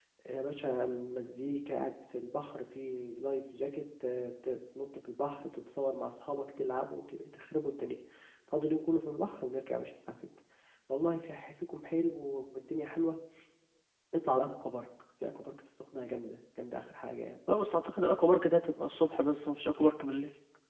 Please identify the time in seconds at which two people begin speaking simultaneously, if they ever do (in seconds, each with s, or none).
none